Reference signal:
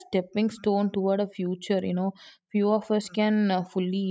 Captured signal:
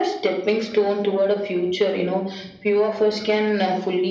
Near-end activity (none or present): none